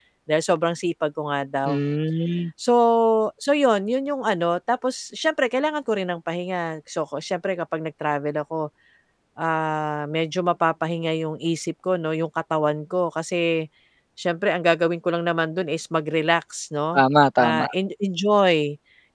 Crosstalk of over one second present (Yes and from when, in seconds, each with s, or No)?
No